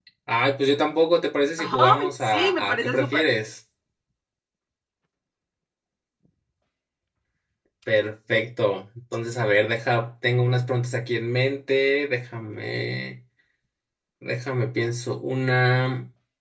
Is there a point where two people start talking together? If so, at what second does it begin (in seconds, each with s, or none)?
1.6 s